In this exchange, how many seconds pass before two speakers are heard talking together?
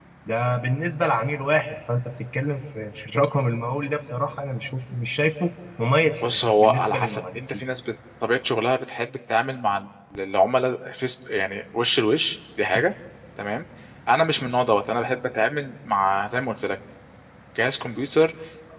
6 s

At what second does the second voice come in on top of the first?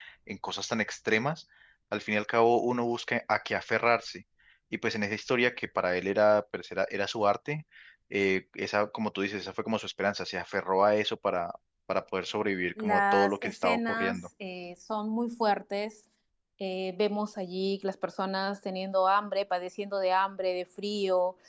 13 s

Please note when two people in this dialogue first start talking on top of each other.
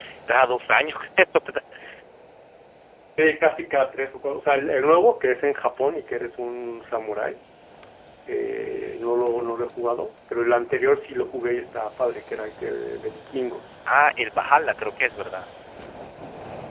none

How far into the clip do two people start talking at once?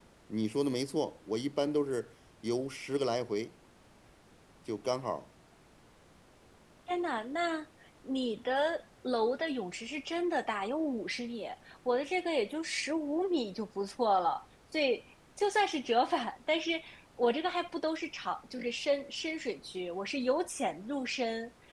none

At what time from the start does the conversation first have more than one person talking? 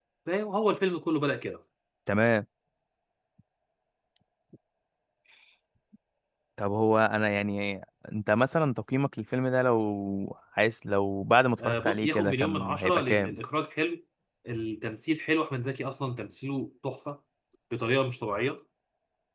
12 s

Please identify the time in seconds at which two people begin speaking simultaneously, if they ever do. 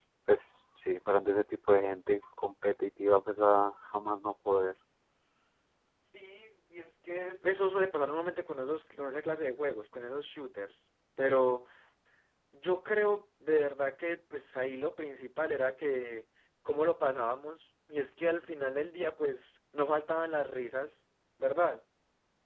none

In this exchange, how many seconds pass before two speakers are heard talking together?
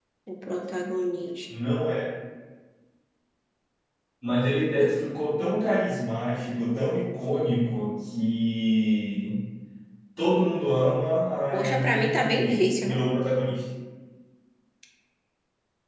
12 s

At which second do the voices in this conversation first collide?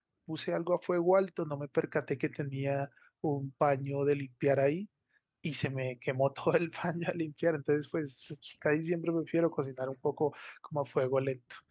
none

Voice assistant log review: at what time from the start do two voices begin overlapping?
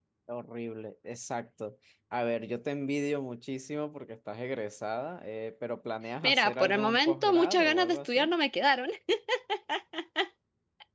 6 s

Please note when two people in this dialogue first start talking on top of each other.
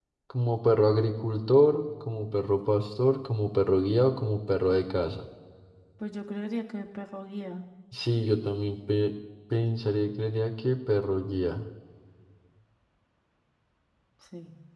none

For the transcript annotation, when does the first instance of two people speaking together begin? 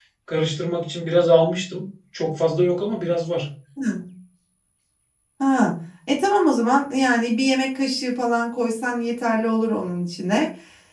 none

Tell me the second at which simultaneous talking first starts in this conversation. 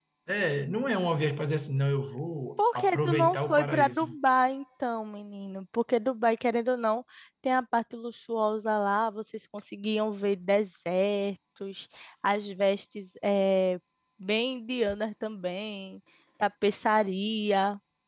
3 s

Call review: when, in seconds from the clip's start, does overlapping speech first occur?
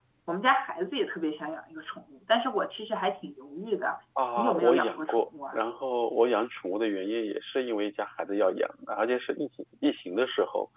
4 s

